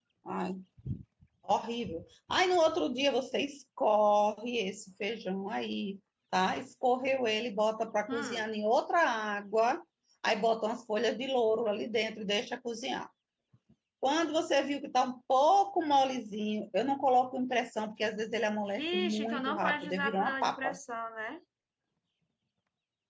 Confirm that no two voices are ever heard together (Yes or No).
No